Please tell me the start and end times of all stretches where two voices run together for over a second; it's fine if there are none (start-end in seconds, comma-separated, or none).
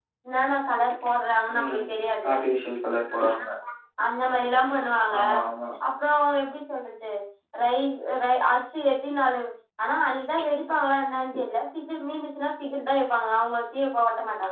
none